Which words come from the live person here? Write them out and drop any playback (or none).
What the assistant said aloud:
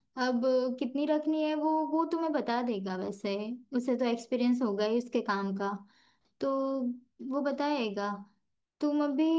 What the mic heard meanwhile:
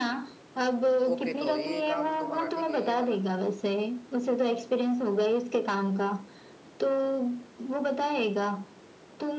ओके तो ये काम तुम्हारा ठीक है ये वाला